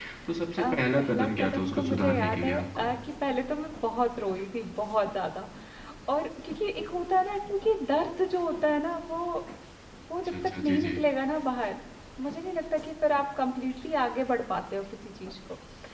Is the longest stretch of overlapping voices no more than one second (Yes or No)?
No